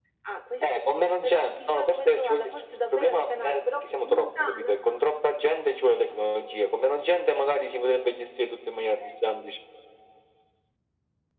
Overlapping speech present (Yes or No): Yes